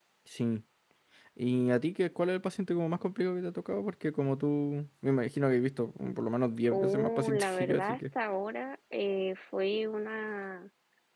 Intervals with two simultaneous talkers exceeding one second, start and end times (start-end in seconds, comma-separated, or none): 6.7-8.0